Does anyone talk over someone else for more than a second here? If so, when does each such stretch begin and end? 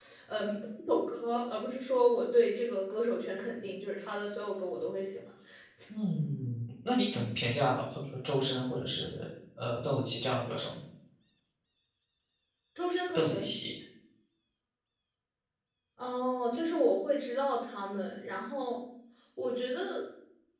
none

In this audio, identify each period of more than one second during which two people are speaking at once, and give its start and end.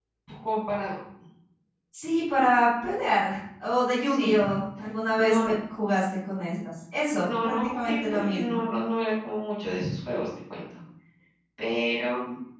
7.2-8.6

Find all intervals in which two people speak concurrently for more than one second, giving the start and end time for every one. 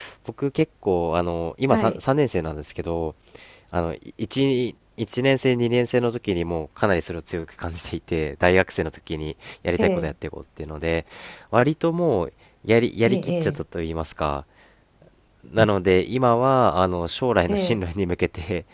none

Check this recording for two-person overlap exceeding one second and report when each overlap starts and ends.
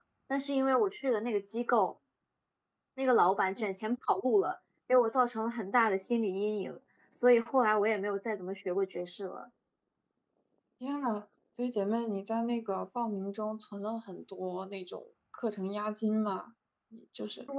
none

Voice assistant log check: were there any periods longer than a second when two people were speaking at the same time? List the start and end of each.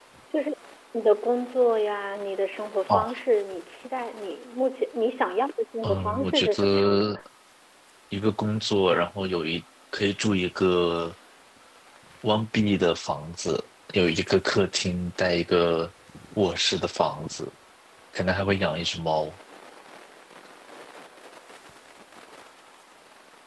5.8-7.2

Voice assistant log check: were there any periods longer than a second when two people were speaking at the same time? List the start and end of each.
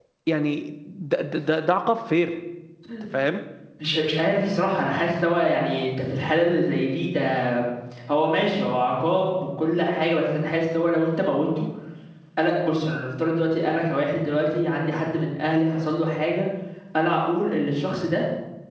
none

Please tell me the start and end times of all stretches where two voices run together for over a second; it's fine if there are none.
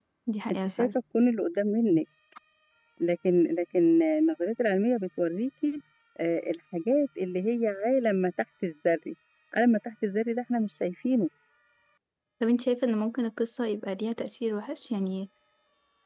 none

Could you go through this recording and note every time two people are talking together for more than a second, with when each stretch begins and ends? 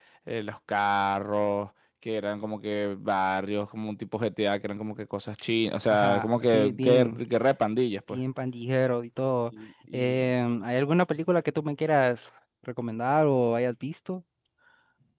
5.9-7.2

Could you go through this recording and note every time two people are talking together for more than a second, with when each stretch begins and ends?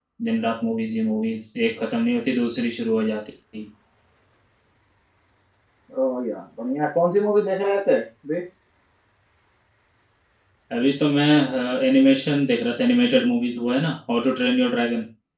none

